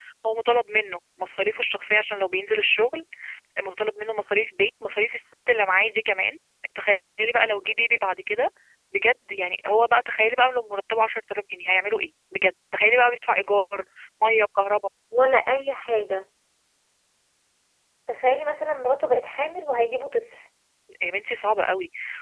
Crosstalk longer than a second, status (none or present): none